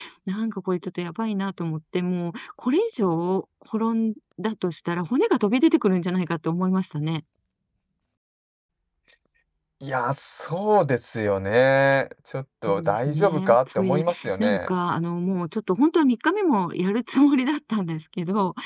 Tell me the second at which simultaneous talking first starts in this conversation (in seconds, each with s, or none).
12.7 s